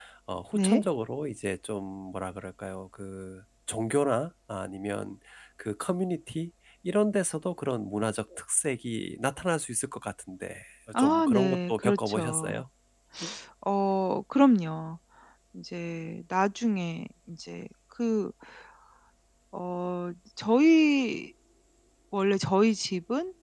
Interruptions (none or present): present